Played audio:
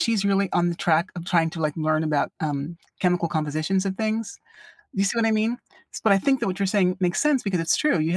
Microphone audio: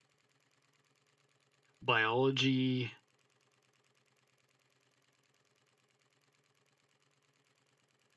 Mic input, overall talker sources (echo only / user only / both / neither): user only